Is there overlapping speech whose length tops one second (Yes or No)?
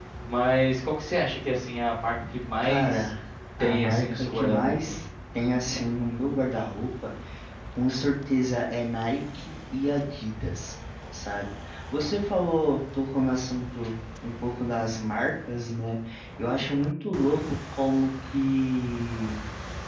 Yes